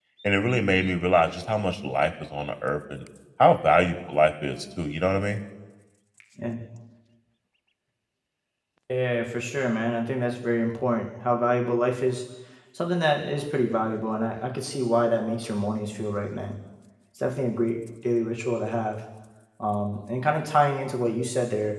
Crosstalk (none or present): none